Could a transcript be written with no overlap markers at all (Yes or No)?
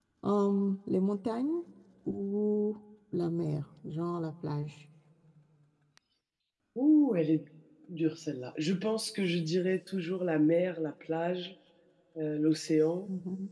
Yes